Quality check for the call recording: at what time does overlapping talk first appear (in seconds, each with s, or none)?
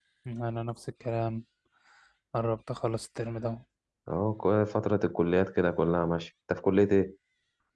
none